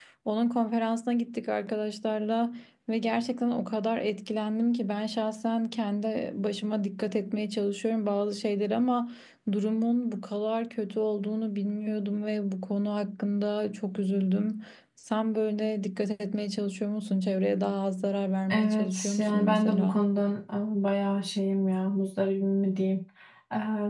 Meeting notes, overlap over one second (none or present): present